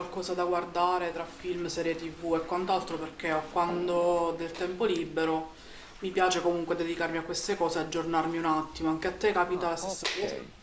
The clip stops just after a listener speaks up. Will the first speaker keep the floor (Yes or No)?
No